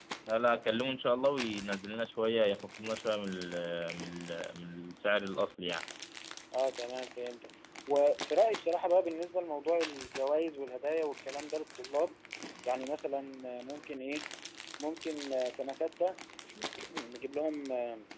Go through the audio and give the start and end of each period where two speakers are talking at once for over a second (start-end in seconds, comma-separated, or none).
none